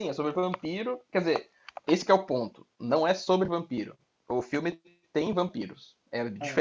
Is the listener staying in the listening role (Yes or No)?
Yes